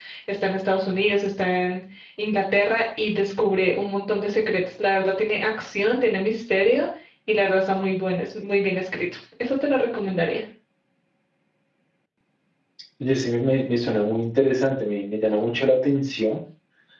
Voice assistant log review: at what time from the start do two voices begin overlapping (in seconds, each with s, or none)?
none